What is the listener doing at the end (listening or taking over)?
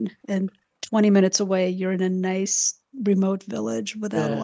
taking over